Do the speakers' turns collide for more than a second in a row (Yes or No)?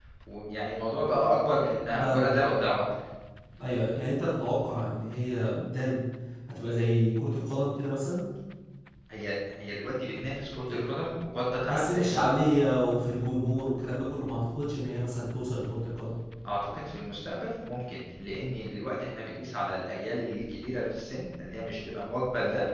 No